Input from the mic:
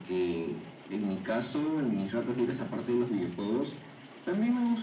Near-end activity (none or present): none